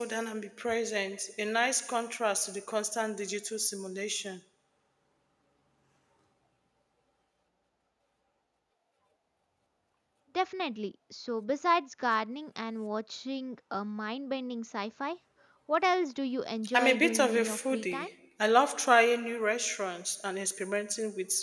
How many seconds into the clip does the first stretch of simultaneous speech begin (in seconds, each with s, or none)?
16.6 s